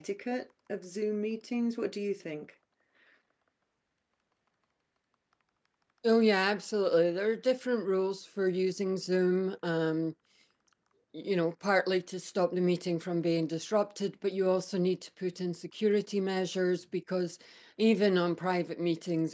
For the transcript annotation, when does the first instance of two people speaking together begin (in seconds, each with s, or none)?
none